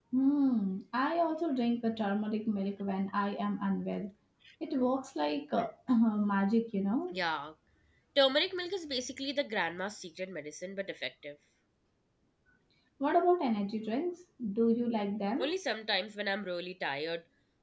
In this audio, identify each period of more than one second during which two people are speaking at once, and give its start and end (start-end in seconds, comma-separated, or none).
none